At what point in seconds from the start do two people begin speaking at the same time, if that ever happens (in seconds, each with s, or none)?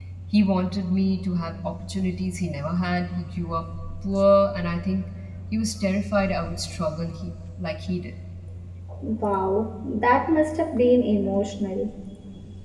none